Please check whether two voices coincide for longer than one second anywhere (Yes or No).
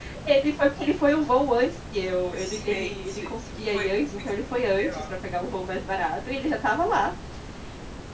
Yes